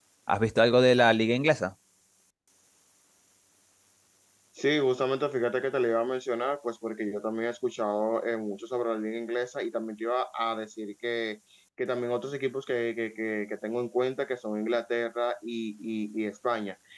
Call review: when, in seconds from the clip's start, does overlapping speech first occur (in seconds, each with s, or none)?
none